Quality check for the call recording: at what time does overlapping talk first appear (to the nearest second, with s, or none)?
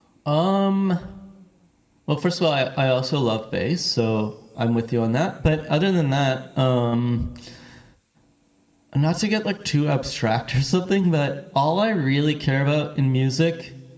none